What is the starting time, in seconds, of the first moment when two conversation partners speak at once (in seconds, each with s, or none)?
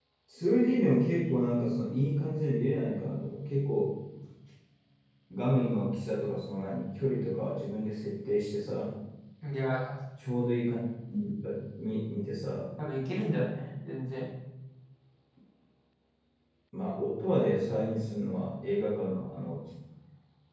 none